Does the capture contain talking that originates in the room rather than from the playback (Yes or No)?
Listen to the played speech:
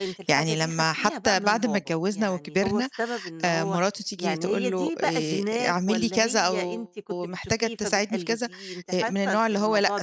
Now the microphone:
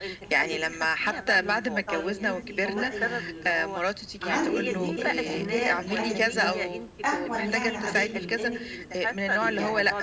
Yes